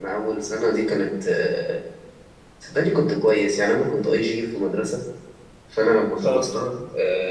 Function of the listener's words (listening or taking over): listening